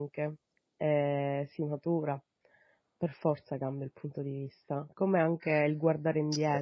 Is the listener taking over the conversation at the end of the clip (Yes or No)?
No